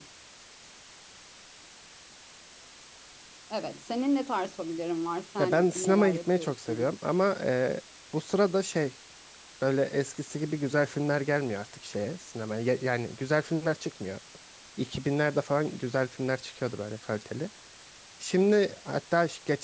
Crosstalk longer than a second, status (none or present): present